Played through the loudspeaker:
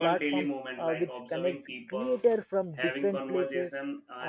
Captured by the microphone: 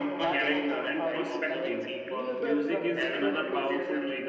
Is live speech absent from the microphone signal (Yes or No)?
No